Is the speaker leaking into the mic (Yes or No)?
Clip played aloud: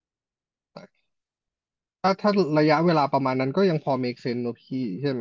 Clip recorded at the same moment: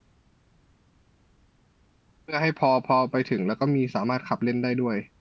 No